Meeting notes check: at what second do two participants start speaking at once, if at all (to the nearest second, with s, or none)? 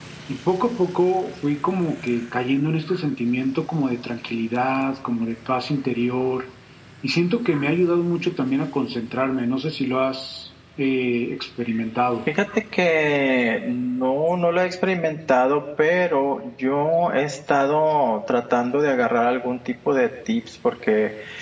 none